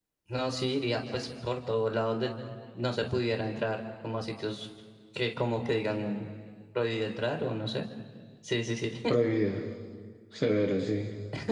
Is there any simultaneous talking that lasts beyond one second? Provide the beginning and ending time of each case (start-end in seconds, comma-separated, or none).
none